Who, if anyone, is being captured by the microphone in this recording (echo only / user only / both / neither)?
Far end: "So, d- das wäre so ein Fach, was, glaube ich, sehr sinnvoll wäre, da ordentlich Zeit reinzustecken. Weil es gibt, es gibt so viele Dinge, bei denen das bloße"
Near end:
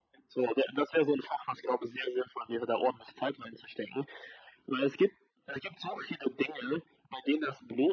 echo only